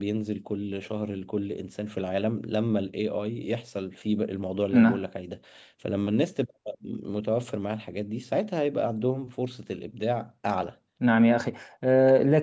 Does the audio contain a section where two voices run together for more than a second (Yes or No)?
No